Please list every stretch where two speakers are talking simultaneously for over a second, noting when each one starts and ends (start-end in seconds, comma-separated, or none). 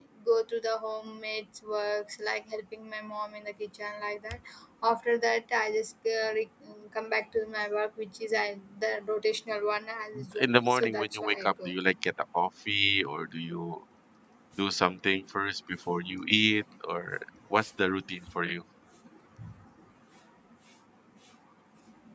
10.4-11.7